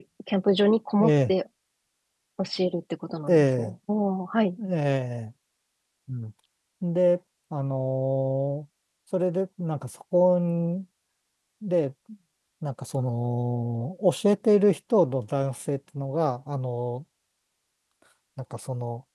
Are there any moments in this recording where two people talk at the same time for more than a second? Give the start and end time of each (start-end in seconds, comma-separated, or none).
none